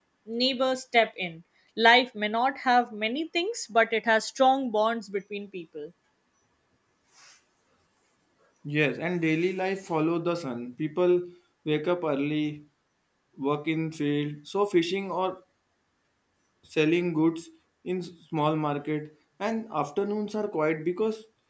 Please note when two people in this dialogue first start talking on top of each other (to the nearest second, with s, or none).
none